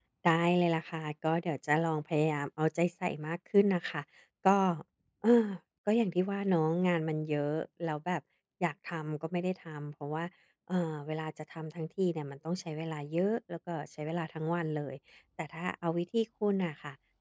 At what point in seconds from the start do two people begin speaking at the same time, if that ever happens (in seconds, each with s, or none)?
none